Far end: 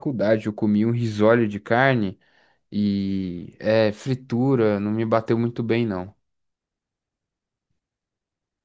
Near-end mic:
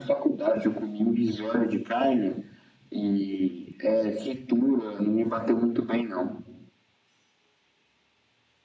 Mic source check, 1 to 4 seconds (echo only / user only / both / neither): echo only